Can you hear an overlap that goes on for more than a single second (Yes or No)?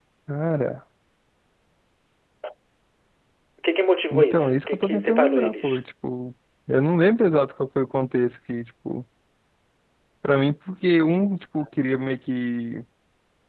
Yes